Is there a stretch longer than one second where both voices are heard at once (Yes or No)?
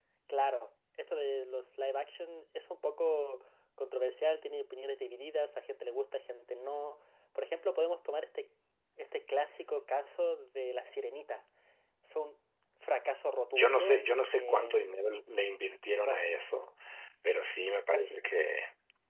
Yes